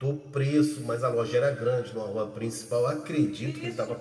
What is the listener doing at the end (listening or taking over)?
taking over